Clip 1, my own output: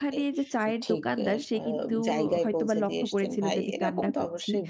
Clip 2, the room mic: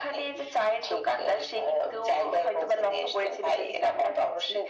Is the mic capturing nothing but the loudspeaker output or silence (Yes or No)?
Yes